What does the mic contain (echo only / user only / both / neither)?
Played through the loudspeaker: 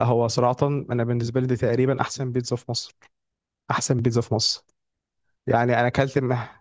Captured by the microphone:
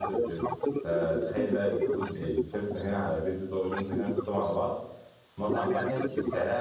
both